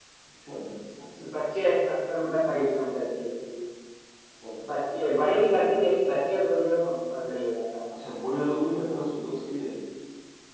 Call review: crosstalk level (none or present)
none